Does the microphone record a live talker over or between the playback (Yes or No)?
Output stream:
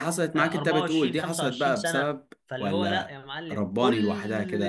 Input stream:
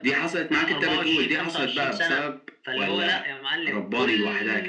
No